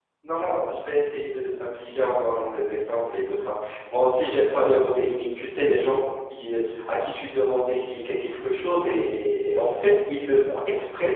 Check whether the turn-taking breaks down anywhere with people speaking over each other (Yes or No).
No